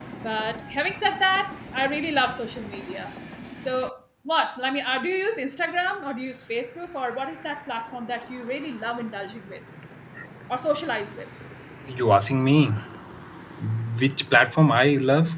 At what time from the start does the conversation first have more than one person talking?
none

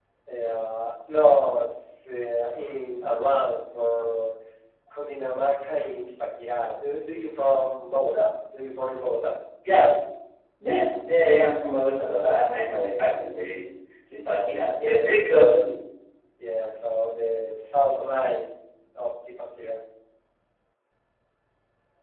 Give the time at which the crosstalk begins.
none

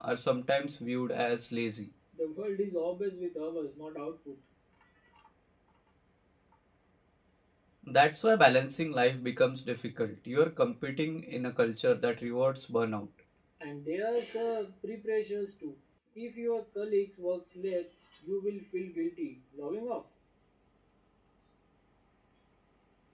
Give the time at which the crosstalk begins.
none

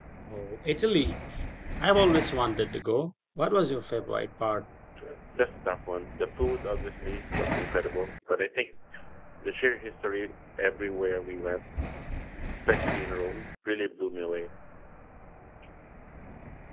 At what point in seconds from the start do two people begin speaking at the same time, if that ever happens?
none

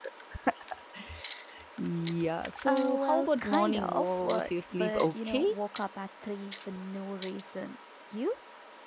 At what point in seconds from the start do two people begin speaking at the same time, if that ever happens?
2.6 s

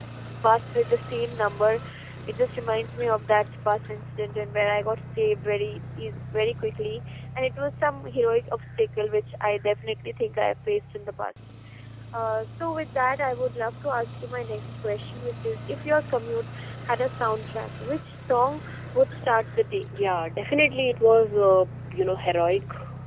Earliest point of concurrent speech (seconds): none

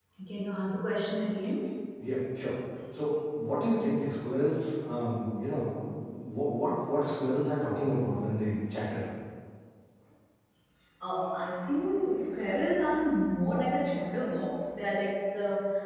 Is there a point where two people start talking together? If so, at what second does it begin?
none

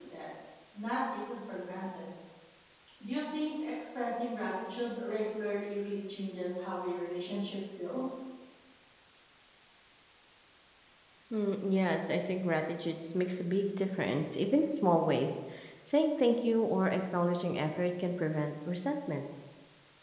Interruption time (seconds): none

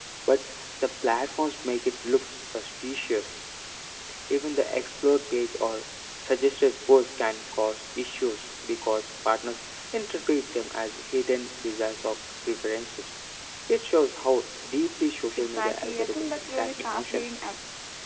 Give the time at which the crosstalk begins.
15.4 s

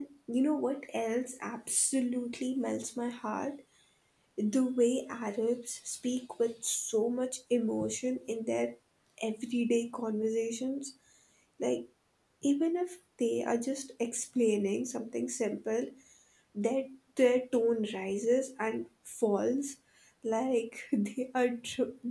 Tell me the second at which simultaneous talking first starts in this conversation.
none

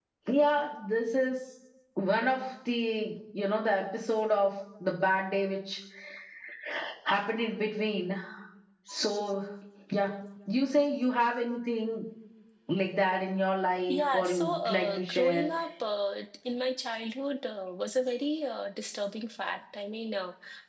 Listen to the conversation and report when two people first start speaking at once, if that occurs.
13.9 s

